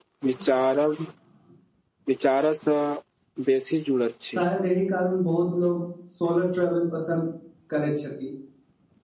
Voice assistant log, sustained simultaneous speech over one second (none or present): none